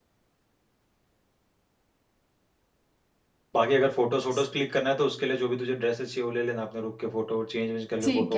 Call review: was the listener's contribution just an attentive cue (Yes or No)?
No